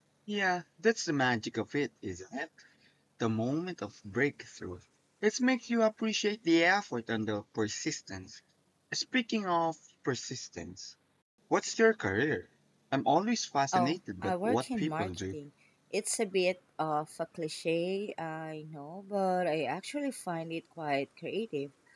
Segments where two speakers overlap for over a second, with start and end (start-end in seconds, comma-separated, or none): 13.7-15.3